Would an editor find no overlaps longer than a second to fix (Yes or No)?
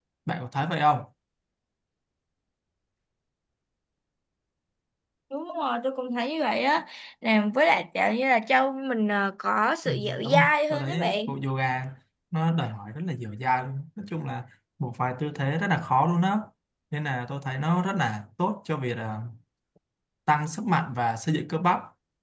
No